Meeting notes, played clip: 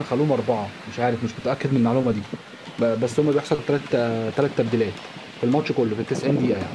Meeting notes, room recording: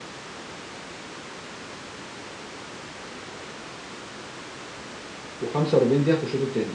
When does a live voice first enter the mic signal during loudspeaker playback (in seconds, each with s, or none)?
5.4 s